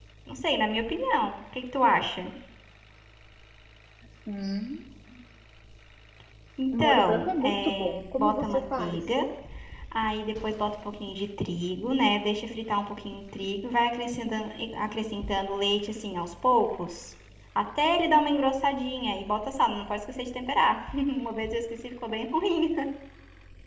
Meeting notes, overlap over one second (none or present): present